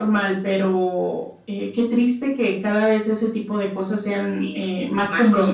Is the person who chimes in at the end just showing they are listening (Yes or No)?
No